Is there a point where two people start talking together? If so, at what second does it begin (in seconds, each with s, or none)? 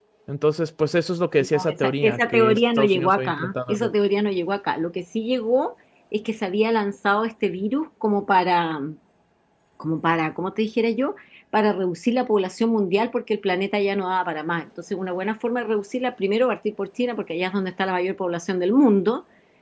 1.5 s